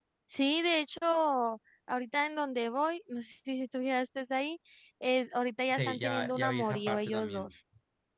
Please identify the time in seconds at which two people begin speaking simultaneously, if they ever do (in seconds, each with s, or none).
5.7 s